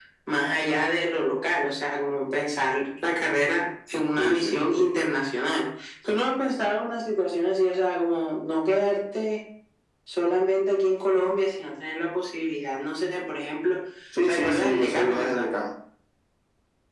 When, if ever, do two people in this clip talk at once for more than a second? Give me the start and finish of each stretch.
14.3-15.5

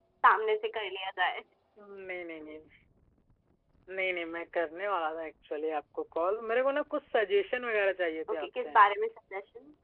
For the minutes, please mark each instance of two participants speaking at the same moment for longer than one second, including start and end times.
none

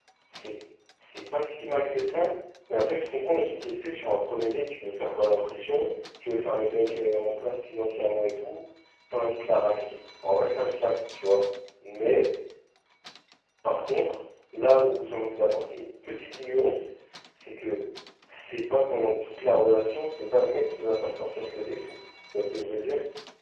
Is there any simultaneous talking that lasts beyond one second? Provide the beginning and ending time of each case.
none

